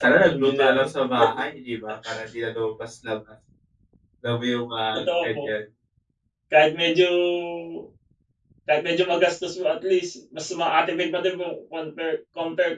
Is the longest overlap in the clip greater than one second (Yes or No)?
Yes